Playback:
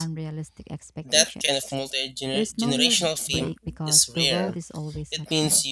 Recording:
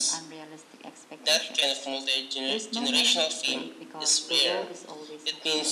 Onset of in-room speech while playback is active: none

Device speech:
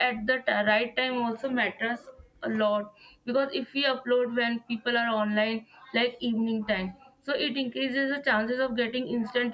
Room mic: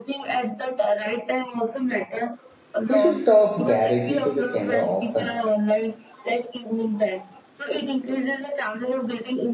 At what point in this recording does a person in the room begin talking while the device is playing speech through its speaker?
2.9 s

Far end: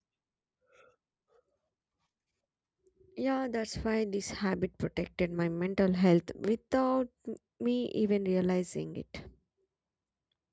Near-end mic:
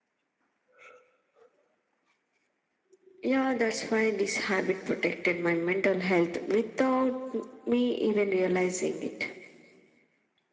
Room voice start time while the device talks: none

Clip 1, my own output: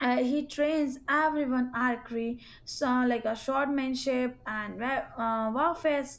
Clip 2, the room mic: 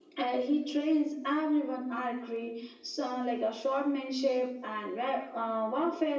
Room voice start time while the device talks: none

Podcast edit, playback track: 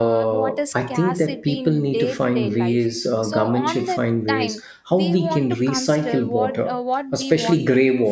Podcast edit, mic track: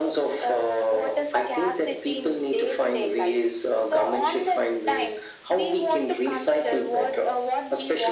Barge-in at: none

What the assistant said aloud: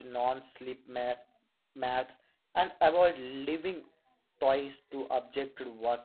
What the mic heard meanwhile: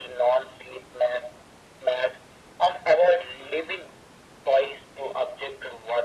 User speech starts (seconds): none

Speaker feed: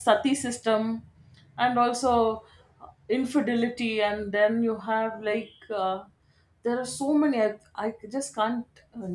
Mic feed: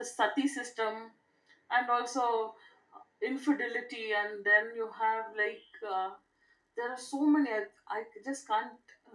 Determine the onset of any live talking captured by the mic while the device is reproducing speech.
none

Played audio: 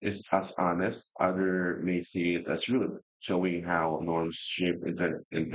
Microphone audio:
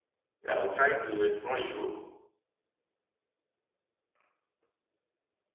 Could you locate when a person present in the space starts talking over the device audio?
0.5 s

